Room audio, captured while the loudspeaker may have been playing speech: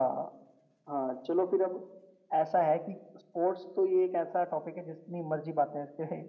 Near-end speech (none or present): none